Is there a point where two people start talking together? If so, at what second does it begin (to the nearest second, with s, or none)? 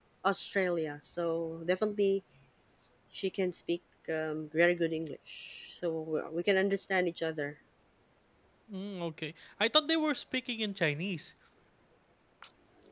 none